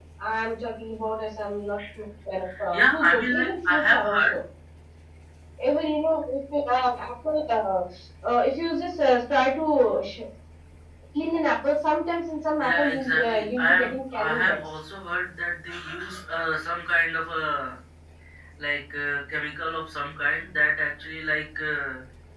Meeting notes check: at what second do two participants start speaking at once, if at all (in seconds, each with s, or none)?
2.7 s